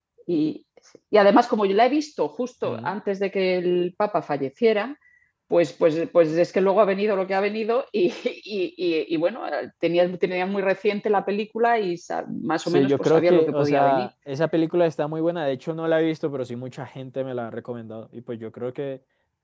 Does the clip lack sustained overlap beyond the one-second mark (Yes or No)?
No